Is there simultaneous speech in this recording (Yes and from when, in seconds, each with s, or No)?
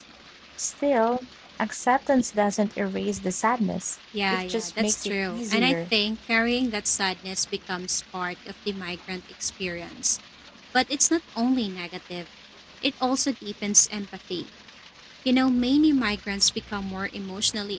Yes, from 4.1 s